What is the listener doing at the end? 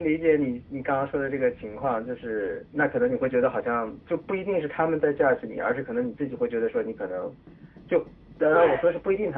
listening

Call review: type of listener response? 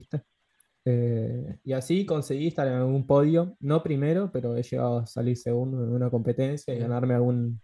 listening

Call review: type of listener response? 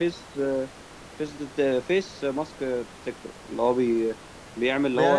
taking over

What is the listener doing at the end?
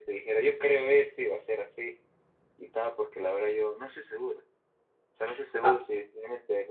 listening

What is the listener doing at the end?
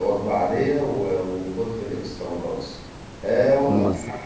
listening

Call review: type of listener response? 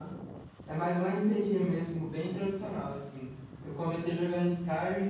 listening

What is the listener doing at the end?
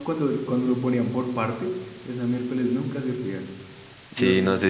taking over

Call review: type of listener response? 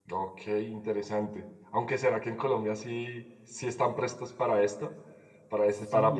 taking over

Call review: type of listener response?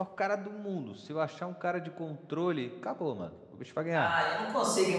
taking over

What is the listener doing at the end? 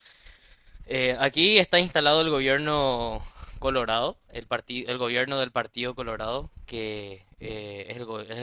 listening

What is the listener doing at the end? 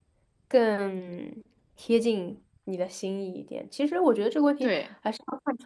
listening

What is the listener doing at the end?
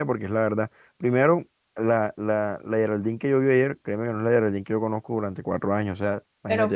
taking over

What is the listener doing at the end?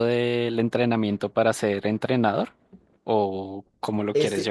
taking over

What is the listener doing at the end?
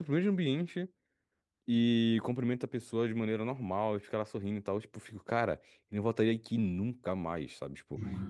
listening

